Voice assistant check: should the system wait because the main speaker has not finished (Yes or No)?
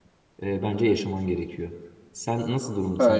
Yes